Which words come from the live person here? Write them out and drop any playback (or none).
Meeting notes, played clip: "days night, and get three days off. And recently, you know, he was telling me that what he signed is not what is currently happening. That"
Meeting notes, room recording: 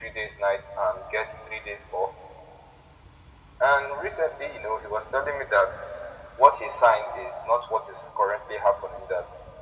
none